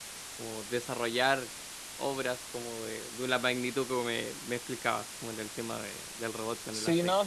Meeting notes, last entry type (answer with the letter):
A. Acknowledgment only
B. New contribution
B